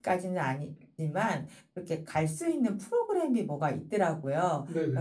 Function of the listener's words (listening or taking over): listening